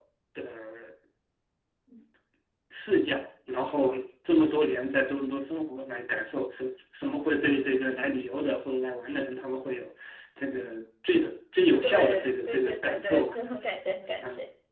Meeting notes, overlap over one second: present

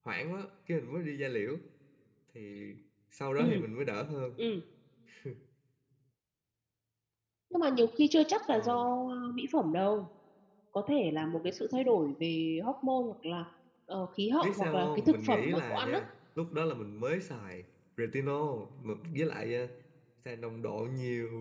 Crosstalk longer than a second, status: present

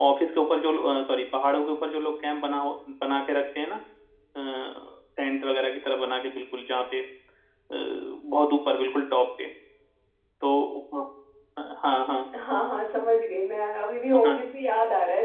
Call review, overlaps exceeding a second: none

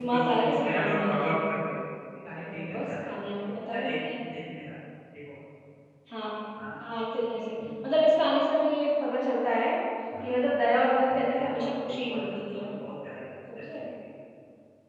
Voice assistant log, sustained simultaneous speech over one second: present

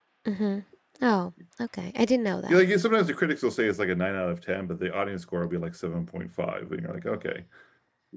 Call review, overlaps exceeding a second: none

